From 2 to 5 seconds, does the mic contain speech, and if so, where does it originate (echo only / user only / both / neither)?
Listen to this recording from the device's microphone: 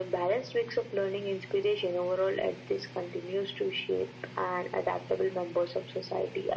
echo only